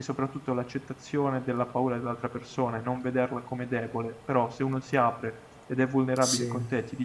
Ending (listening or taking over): listening